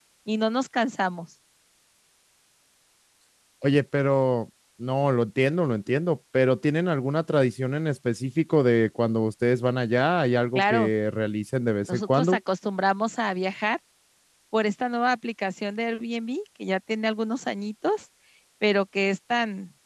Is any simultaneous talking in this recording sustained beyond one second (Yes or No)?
No